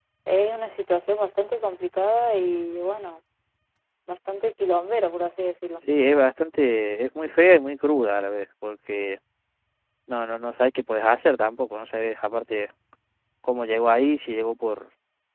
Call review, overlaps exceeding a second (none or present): none